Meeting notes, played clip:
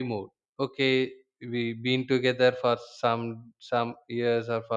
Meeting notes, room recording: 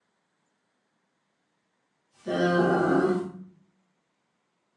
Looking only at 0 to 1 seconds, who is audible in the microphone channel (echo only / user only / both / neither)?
neither